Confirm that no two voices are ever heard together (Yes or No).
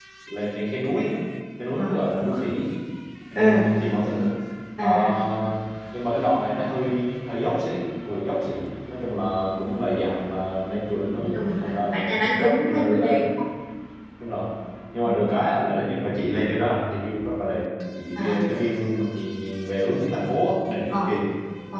No